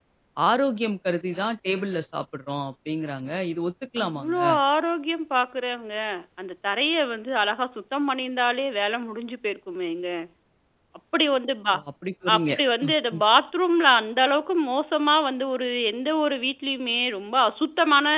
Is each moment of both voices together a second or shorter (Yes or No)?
Yes